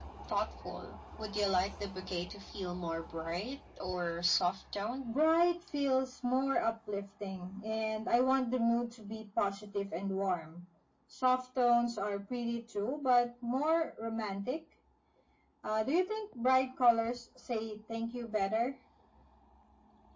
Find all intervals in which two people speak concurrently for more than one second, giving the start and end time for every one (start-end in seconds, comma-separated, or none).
none